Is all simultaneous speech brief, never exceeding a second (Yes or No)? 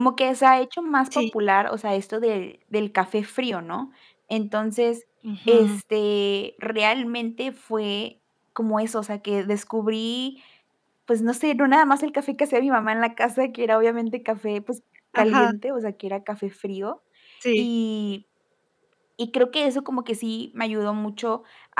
Yes